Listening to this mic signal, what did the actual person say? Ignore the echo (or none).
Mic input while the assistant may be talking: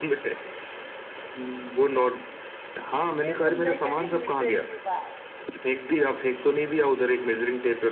ये तुमने करी मुद्दे की बात